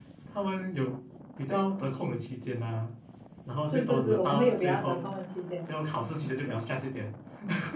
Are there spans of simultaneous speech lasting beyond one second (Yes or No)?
Yes